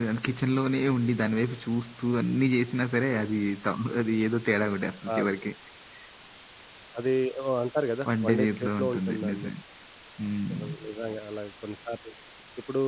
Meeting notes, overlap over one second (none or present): present